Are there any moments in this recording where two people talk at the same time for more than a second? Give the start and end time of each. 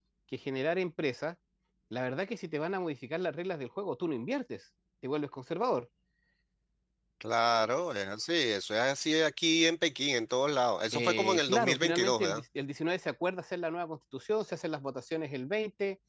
10.9-12.4

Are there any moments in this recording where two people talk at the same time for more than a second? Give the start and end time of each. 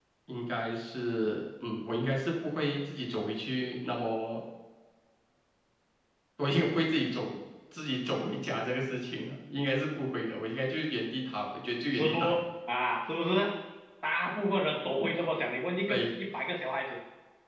none

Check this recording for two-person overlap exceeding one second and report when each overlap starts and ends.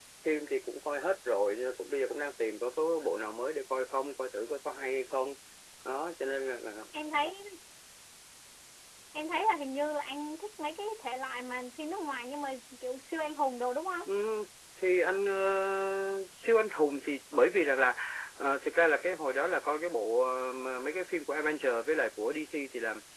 none

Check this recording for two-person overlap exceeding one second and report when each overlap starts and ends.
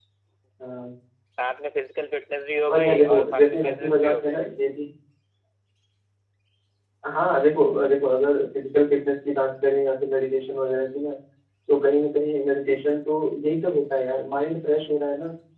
2.7-4.4

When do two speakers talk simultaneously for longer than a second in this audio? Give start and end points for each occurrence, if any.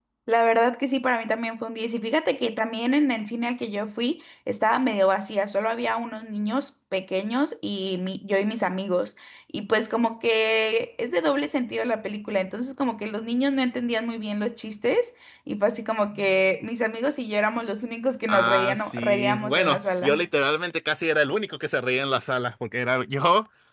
18.3-20.2

